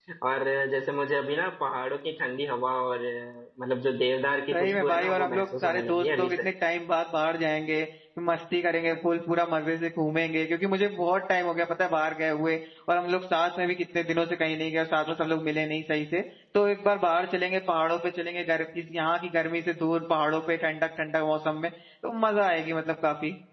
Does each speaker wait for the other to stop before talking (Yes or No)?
No